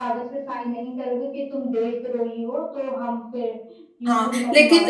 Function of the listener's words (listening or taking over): taking over